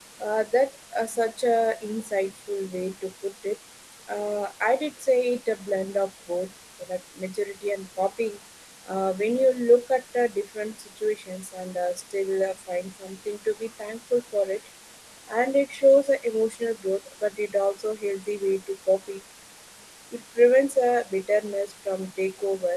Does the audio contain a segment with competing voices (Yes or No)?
No